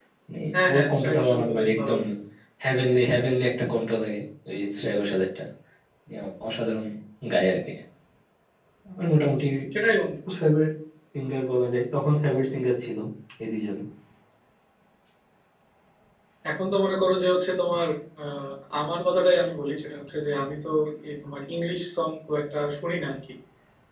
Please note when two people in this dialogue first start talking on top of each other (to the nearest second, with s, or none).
1 s